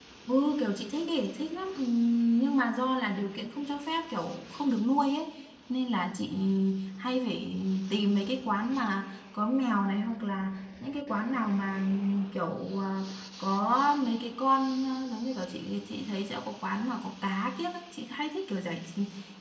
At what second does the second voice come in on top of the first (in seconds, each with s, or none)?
none